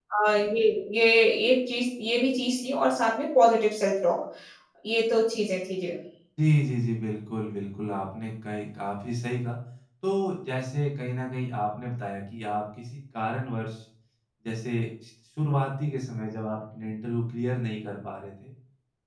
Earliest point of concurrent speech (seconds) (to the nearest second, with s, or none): none